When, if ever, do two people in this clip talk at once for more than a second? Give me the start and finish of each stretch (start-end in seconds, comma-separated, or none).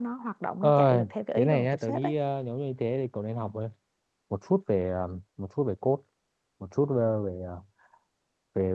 0.6-2.1